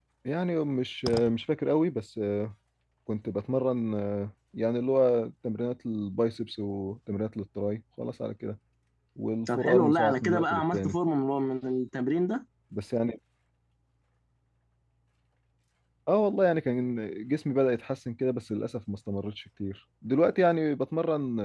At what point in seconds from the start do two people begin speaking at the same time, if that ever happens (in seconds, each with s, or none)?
9.5 s